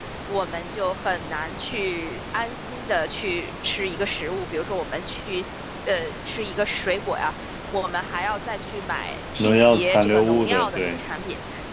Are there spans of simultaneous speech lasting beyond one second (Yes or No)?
Yes